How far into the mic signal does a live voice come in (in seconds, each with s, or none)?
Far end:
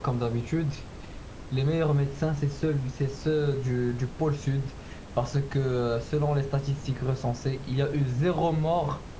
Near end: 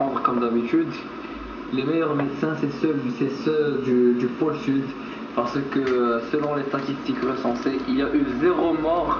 none